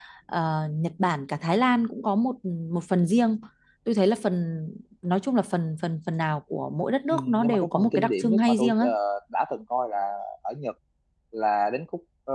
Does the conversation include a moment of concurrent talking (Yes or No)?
Yes